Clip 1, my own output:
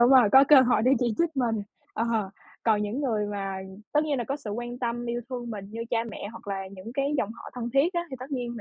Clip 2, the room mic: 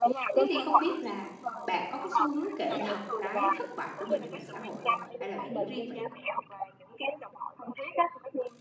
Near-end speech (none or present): present